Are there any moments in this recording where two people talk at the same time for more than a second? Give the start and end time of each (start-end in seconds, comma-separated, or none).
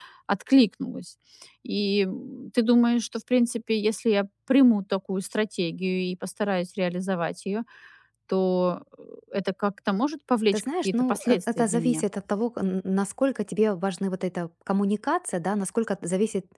10.5-12.0